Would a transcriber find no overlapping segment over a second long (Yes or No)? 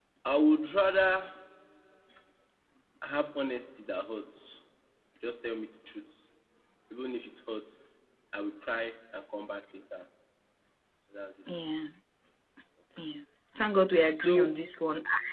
Yes